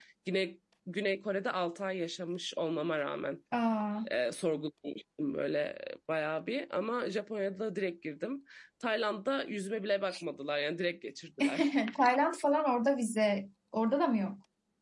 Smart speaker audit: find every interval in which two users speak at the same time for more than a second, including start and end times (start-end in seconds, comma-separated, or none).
none